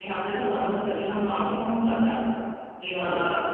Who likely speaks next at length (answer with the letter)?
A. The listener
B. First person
B